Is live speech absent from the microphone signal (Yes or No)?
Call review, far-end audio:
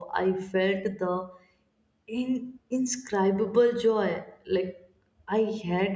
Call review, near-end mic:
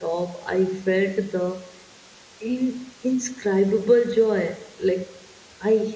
Yes